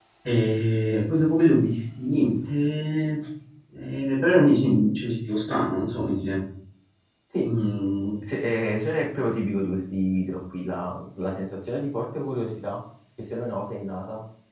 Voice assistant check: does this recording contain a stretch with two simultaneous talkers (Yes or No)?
No